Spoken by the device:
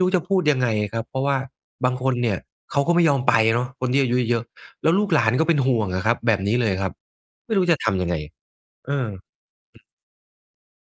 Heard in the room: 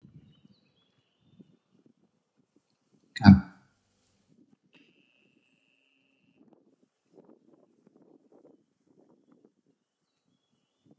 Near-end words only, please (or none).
ครับ